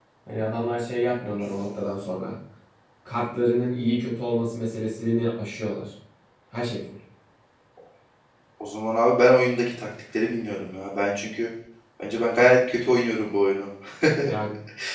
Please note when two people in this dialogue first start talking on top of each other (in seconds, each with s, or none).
none